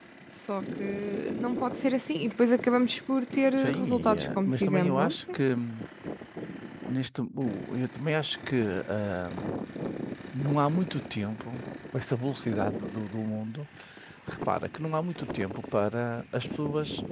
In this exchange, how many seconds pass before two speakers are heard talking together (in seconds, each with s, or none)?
3.6 s